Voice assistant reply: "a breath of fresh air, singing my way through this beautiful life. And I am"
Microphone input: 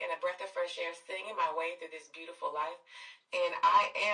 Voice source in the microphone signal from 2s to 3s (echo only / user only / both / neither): echo only